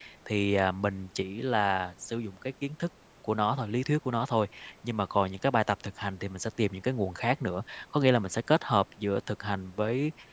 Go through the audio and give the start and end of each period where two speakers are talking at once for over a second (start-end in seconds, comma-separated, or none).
none